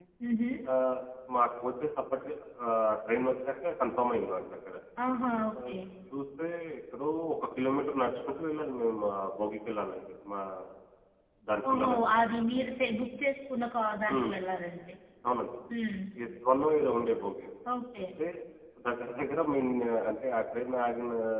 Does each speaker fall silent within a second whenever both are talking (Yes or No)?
Yes